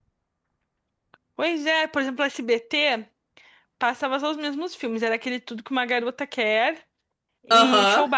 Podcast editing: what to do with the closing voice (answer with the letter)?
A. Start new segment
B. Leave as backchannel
B